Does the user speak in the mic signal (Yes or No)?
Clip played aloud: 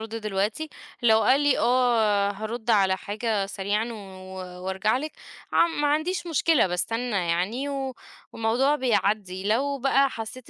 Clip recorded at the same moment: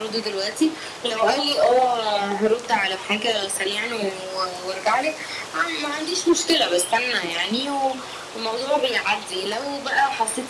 No